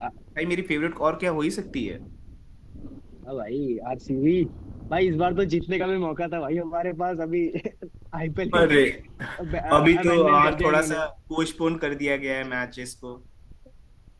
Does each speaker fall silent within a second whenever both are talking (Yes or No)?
No